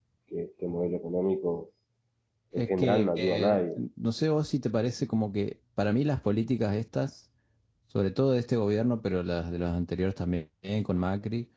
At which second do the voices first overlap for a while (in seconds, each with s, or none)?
2.6 s